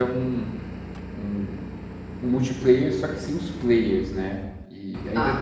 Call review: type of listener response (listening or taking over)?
listening